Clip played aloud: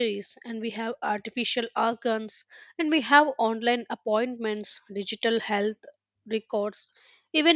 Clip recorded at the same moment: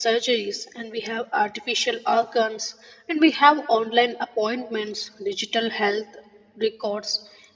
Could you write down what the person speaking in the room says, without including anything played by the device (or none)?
none